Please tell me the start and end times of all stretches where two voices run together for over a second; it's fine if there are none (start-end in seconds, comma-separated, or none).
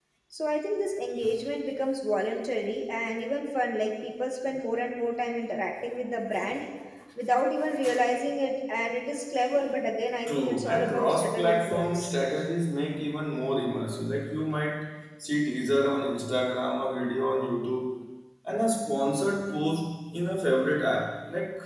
10.3-12.1